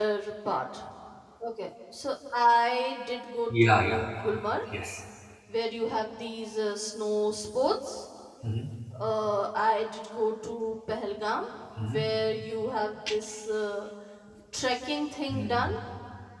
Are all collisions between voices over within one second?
Yes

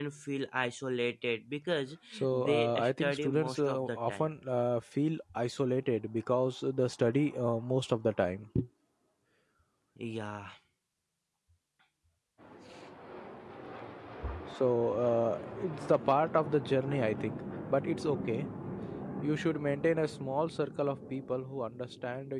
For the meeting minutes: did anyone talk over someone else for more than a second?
Yes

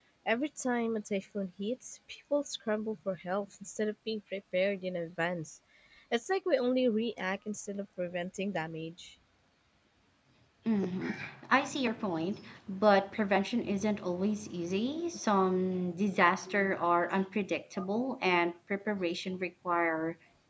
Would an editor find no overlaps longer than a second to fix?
Yes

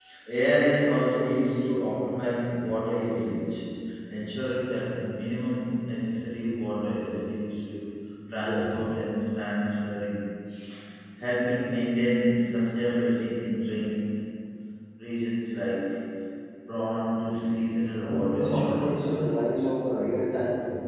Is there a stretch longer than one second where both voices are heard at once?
Yes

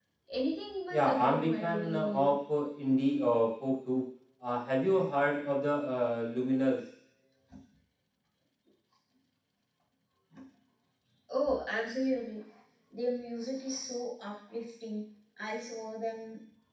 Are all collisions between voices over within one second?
No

